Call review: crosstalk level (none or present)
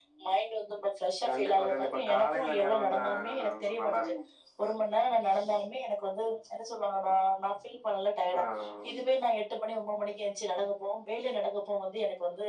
present